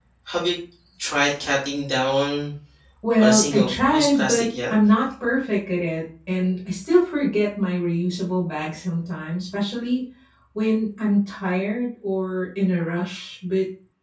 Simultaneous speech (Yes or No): Yes